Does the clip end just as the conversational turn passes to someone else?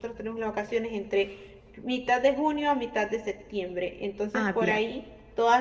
No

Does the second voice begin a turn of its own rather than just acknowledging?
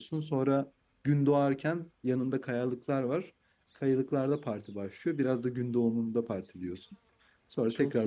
No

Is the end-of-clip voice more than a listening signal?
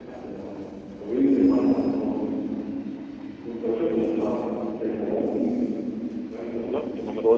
Yes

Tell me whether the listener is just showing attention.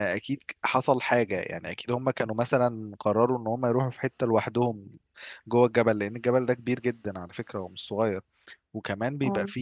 Yes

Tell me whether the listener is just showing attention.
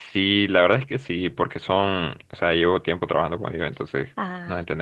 Yes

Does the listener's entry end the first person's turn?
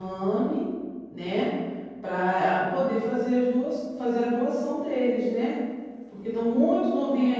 No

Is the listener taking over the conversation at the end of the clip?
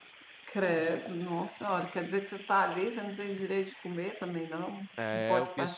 Yes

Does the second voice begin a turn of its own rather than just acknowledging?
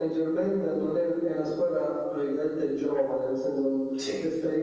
No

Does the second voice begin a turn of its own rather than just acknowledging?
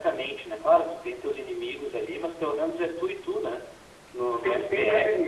Yes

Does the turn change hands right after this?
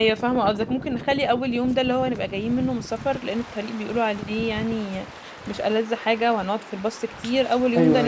No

